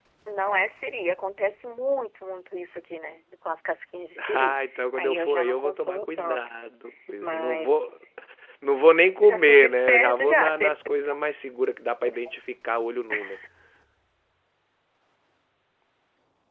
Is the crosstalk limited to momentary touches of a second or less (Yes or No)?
No